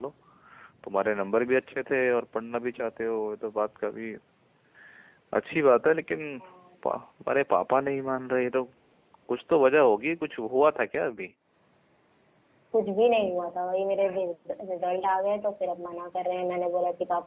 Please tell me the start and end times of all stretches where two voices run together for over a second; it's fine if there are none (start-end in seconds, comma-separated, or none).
none